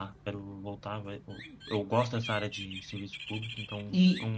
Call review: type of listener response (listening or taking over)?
taking over